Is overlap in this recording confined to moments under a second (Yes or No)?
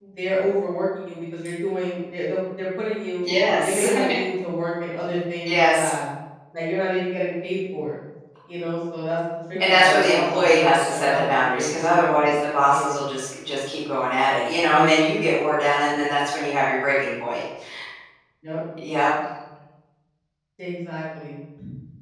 No